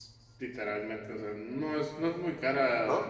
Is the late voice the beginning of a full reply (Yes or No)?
No